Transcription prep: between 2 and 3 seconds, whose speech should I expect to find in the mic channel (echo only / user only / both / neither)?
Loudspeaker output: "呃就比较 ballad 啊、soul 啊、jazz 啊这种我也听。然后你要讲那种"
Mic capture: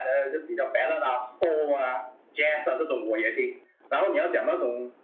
echo only